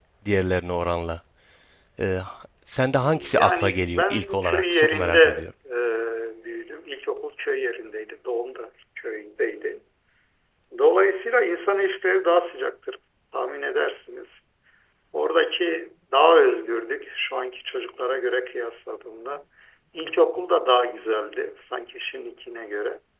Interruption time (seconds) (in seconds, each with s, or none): 3.3 s